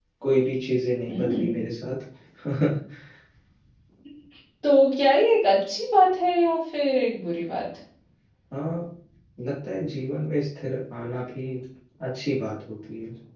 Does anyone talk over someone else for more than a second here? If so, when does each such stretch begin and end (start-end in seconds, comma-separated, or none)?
none